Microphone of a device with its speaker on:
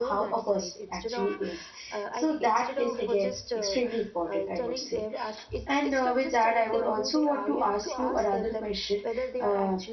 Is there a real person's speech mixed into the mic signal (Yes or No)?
Yes